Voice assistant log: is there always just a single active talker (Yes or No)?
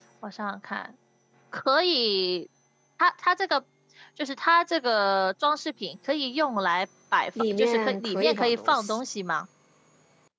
No